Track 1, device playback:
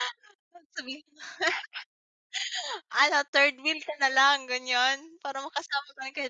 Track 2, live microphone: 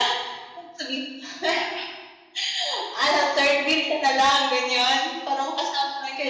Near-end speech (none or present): none